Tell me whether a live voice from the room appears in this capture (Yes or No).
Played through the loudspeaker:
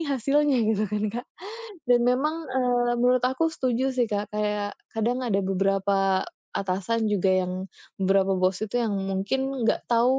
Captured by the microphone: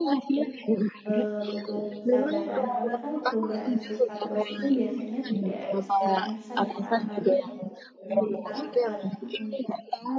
Yes